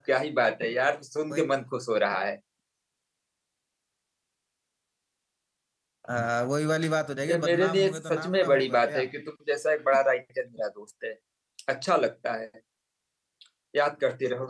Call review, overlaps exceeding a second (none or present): present